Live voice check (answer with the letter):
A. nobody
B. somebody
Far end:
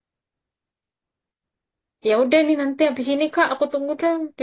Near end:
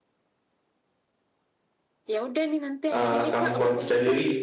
B